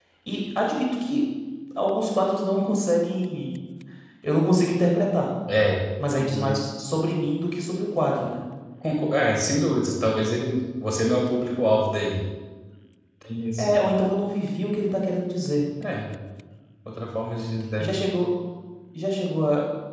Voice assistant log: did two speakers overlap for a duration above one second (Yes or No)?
No